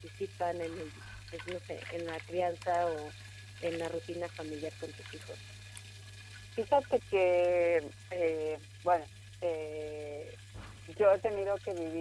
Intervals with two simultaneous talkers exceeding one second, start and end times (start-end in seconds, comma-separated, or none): none